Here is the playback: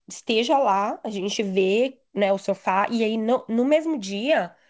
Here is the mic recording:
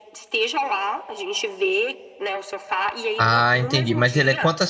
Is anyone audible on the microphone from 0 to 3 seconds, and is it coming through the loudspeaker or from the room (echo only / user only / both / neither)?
echo only